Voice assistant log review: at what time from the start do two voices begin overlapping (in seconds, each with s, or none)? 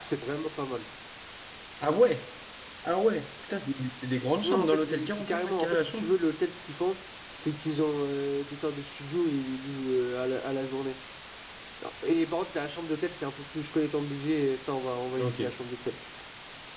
4.4 s